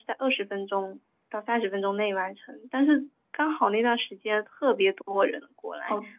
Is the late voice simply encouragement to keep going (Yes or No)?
No